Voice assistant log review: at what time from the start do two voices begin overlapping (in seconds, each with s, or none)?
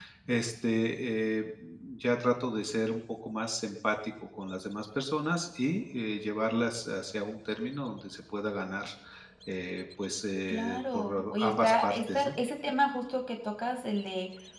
10.7 s